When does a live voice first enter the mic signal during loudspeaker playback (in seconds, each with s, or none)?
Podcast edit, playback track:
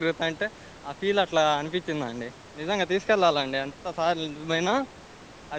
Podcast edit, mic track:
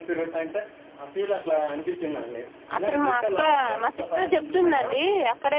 2.8 s